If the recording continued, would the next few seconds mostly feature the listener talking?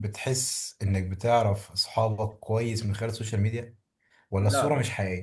No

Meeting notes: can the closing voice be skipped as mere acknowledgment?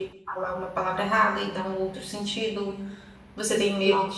Yes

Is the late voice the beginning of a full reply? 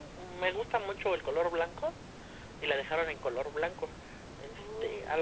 No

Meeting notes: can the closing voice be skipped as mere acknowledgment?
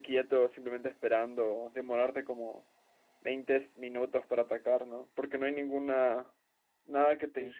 No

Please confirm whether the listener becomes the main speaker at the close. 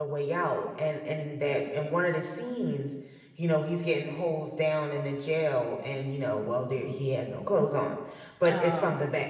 No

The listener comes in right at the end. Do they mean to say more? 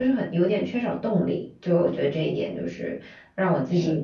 No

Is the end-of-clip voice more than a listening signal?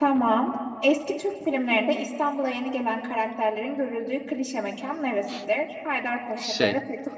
No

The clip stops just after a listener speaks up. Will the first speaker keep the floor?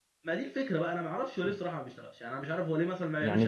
No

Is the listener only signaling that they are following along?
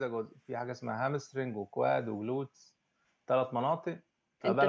No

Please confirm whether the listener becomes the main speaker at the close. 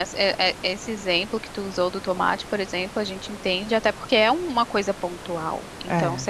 No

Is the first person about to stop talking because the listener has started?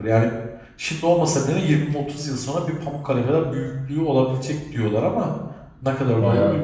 Yes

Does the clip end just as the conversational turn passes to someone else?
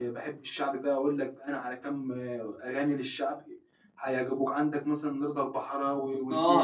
Yes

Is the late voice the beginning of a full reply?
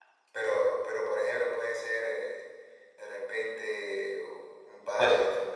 No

